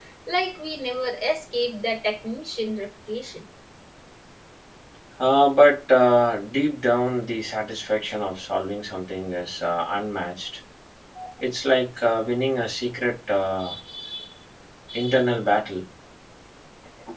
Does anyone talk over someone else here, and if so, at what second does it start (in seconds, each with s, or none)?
none